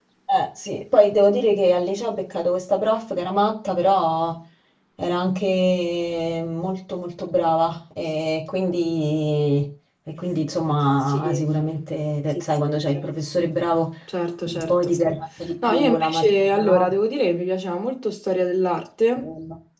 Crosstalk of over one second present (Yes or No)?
Yes